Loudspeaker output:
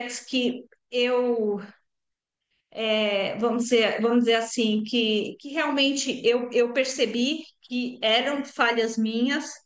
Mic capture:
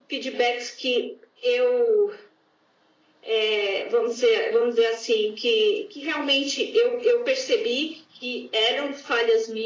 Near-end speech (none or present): none